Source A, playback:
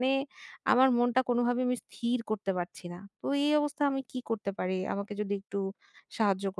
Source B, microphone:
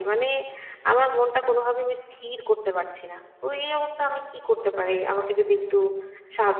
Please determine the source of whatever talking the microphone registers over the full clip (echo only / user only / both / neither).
echo only